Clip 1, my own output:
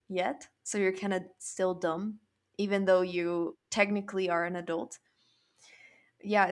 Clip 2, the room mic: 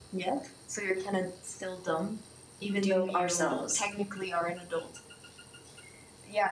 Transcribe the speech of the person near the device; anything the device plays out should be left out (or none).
do ourselves.